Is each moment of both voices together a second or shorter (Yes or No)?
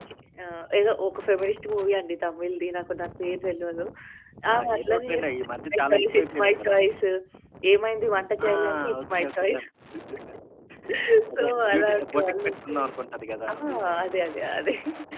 No